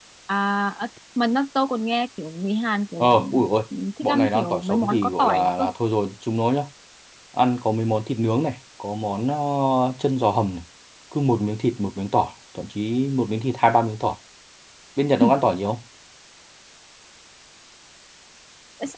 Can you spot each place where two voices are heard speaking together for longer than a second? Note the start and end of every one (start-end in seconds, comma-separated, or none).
4.0-5.6